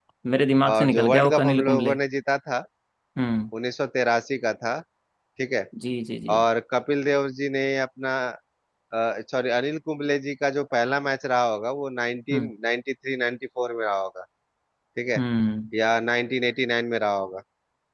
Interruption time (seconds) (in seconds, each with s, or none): 0.7 s